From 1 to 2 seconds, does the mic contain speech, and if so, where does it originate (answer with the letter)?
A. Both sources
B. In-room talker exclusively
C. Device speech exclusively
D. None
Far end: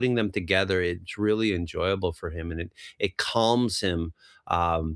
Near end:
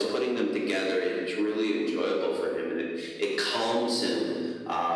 C